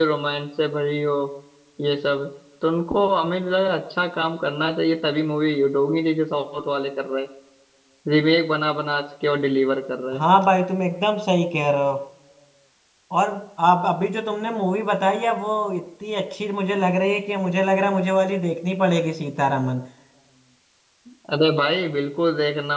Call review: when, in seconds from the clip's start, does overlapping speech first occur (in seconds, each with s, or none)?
none